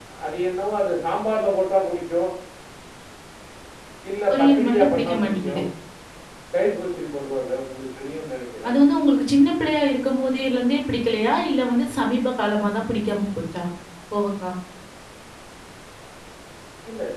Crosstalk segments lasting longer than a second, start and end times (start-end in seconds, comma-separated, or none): 4.3-5.6